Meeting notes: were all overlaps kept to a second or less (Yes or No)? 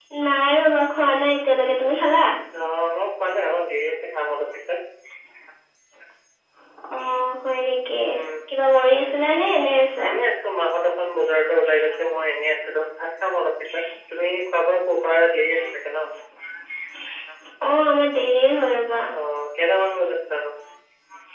Yes